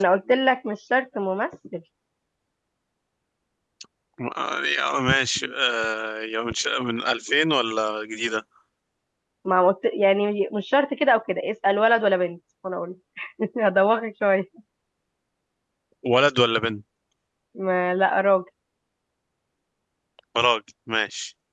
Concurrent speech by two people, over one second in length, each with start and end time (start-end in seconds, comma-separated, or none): none